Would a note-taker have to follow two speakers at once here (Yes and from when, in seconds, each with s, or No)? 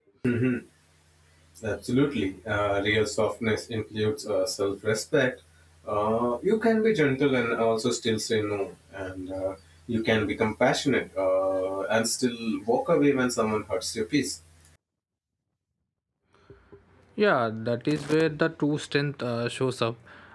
No